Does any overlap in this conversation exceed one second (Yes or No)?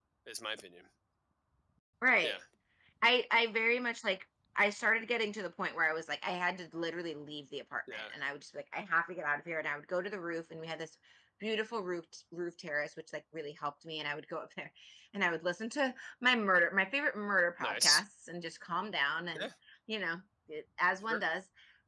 No